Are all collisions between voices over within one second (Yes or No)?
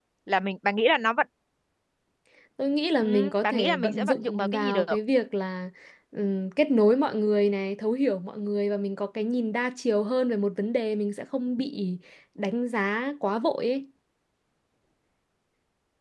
No